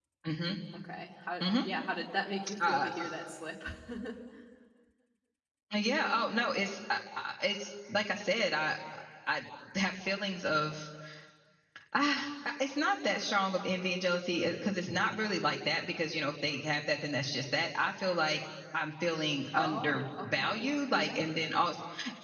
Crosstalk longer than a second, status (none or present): present